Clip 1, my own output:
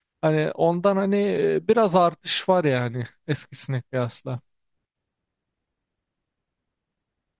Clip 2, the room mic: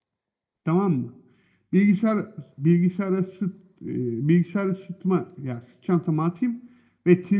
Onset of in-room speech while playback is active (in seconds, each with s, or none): 0.6 s